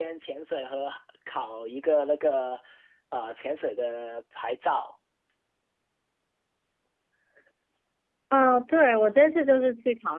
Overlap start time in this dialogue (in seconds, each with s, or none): none